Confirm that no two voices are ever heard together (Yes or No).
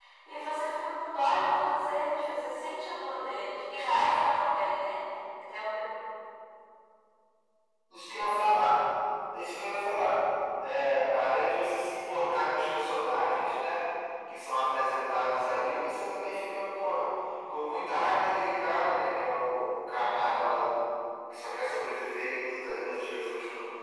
Yes